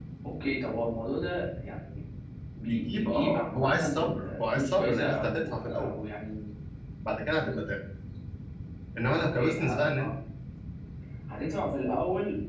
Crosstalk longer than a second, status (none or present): present